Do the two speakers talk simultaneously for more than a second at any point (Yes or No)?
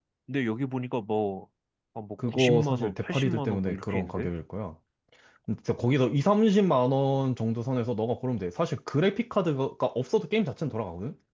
Yes